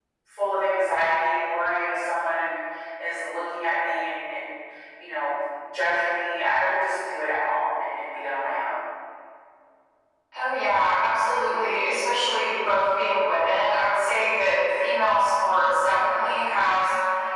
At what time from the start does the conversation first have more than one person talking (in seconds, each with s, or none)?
none